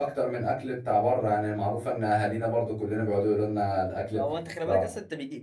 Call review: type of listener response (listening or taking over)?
taking over